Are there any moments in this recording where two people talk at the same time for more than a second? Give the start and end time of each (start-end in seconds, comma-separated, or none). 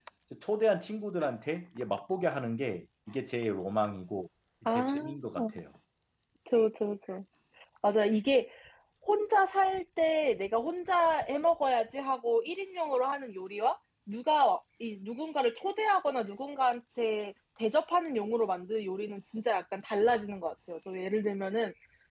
none